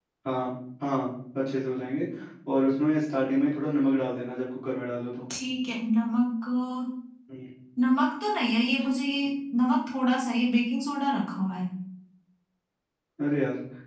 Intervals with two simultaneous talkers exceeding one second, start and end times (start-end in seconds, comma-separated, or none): none